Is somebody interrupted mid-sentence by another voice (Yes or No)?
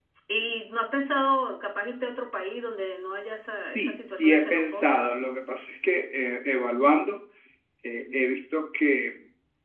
Yes